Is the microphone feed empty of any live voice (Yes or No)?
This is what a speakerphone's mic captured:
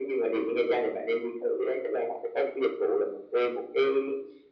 Yes